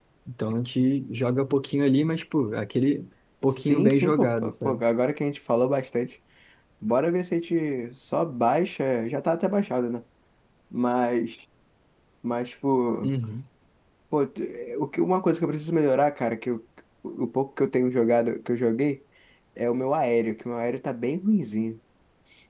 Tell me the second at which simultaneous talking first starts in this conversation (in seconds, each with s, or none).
3.5 s